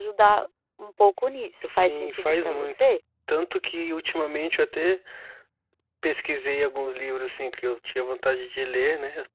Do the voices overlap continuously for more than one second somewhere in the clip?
Yes, from 1.6 s

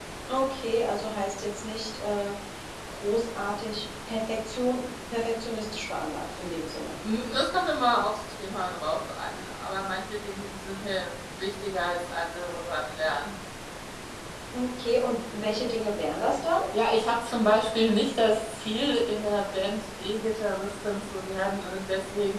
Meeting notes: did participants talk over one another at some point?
No

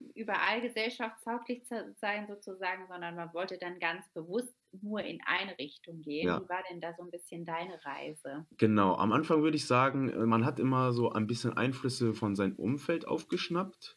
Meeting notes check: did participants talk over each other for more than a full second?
No

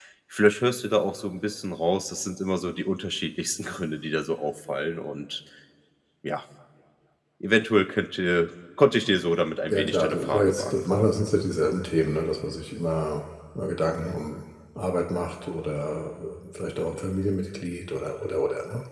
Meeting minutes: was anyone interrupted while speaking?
Yes, from 9.7 s

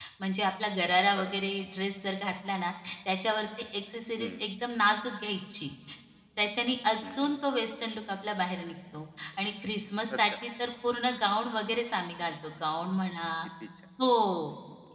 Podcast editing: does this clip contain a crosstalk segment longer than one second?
No

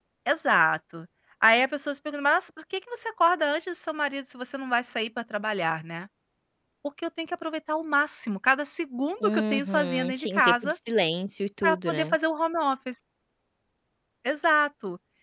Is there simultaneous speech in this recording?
Yes, from 9.2 s

